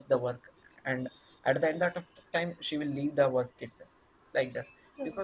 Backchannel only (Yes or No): Yes